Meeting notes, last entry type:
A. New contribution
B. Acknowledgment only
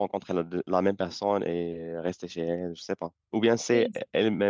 B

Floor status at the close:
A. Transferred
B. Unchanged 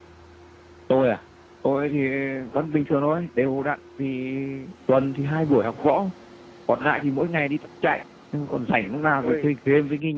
B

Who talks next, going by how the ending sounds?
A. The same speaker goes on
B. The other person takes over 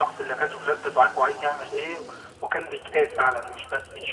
B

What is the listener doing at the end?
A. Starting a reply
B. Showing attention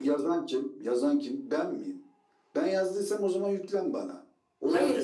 A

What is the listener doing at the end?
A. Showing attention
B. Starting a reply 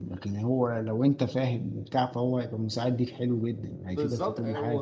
B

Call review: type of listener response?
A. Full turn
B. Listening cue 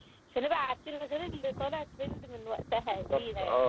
A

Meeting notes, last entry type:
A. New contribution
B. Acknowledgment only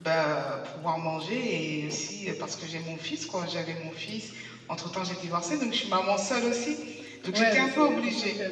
A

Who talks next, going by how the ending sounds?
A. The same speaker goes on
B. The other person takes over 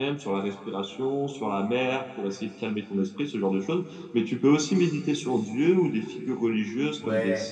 B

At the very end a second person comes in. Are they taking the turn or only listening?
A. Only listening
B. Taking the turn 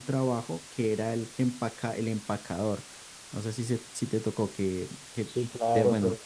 B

